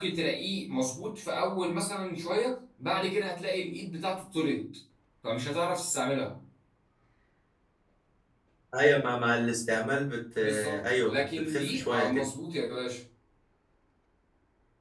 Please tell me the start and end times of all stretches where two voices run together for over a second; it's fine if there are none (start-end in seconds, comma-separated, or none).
10.4-12.2